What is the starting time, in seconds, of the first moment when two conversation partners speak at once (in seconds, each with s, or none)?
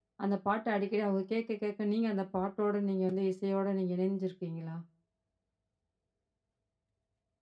none